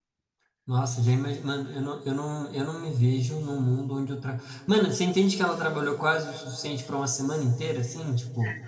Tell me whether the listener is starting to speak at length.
No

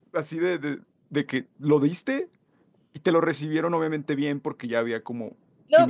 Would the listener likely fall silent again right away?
No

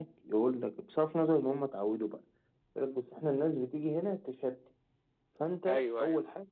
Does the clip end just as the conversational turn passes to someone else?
No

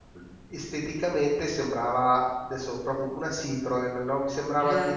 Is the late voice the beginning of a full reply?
No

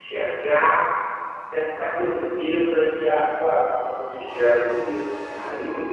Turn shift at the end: Yes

